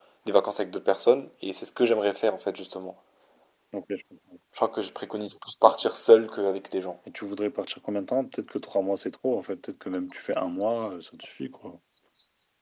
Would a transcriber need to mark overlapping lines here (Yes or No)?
No